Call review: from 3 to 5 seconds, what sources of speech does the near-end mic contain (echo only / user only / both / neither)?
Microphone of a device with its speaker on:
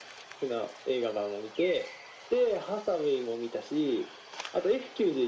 echo only